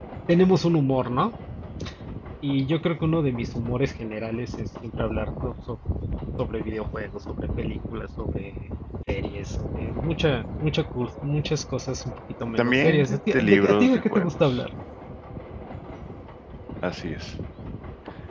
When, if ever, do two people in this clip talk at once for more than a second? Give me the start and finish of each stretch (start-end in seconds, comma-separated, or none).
12.6-14.6